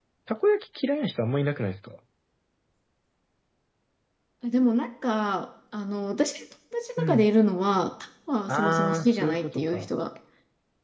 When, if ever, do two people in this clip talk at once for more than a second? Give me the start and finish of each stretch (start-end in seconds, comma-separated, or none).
8.5-9.8